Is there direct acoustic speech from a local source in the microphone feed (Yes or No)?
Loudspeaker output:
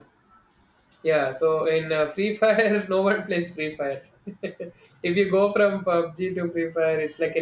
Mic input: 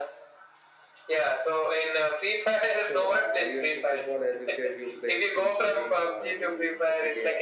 Yes